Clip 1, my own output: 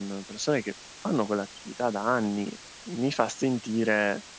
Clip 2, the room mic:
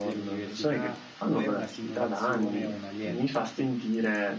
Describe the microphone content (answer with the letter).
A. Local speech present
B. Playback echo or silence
A